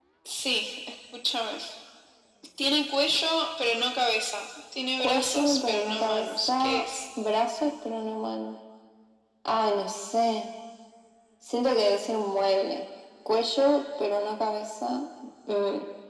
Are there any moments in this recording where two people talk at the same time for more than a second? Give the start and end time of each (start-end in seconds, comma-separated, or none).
5.0-6.8